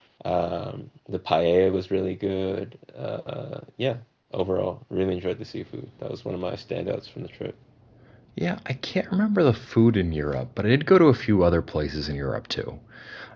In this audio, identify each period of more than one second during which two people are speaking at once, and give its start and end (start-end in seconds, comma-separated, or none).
none